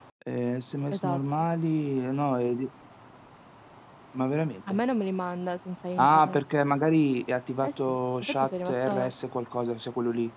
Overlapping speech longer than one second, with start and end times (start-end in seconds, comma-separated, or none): 7.6-9.1